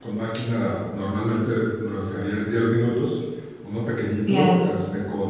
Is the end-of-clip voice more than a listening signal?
No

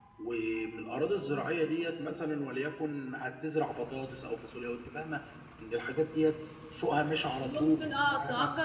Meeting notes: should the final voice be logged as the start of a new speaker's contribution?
Yes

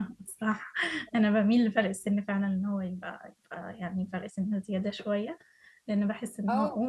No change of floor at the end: Yes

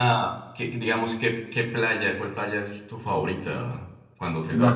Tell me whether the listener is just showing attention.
No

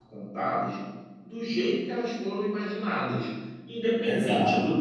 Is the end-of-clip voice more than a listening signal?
No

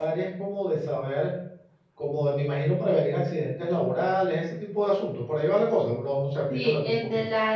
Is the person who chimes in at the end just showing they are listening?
No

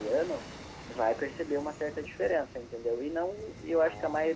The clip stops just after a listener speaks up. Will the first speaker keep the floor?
Yes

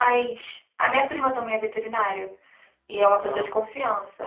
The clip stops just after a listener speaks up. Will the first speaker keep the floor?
Yes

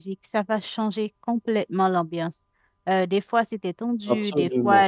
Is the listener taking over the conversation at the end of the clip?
No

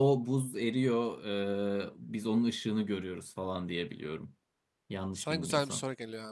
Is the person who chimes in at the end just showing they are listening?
No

